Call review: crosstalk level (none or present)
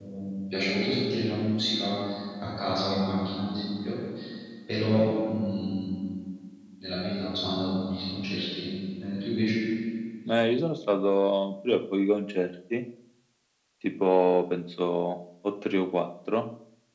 none